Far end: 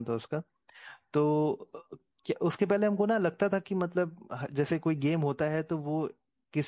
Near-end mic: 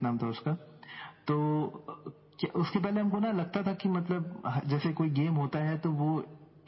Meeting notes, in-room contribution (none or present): none